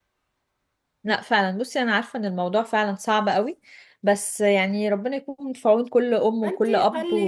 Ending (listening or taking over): taking over